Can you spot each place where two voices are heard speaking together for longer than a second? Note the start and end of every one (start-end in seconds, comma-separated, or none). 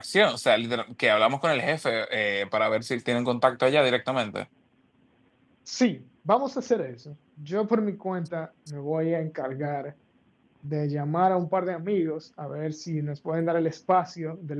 none